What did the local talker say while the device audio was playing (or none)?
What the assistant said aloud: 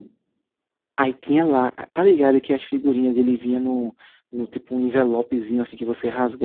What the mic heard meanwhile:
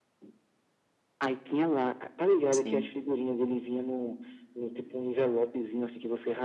Sim,